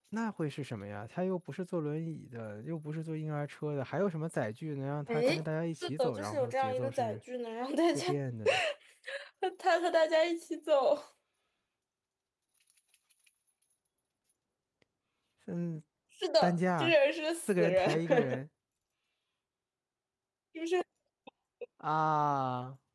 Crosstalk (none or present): present